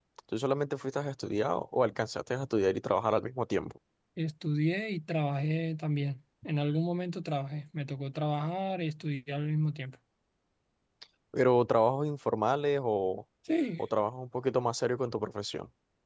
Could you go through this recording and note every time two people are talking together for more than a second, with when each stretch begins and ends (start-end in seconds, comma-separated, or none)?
none